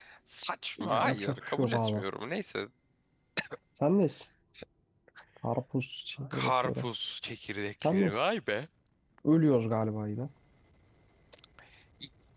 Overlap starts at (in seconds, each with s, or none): 0.8 s